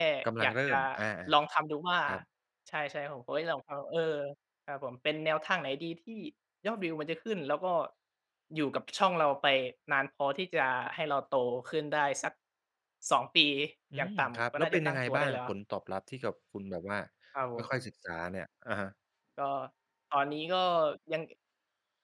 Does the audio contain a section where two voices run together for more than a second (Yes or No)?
Yes